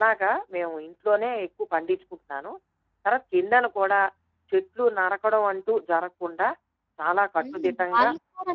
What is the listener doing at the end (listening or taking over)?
taking over